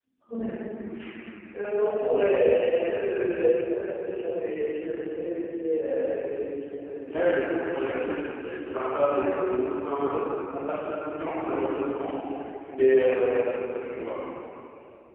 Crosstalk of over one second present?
No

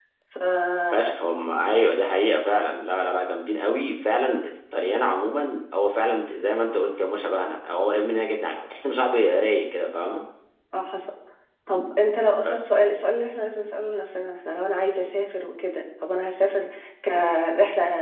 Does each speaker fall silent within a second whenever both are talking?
Yes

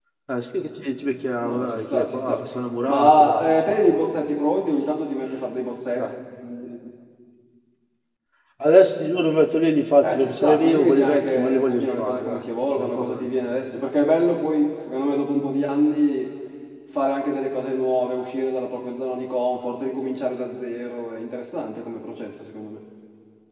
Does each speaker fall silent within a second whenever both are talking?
No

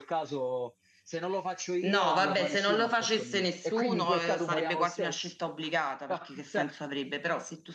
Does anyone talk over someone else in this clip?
Yes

